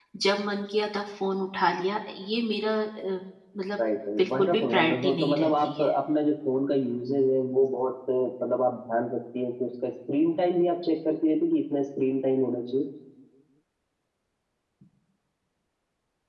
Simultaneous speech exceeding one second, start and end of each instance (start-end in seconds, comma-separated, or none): 4.2-5.9